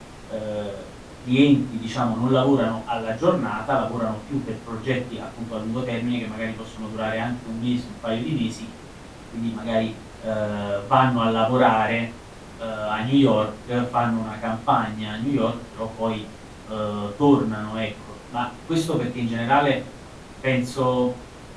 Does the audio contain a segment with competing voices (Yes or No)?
No